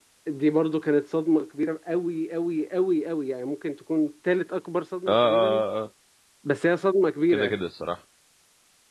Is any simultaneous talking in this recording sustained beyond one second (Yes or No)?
No